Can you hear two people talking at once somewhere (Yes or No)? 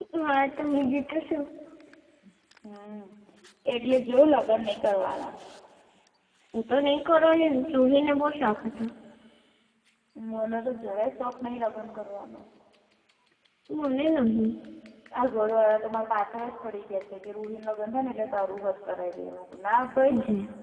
No